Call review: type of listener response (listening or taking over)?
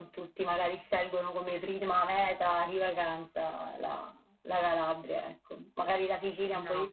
listening